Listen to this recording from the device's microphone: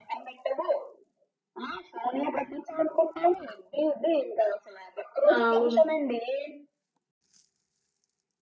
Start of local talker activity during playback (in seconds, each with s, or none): 5.3 s